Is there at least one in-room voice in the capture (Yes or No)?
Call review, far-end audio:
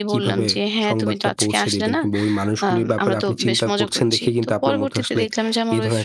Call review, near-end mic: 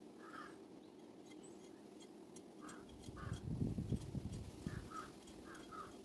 No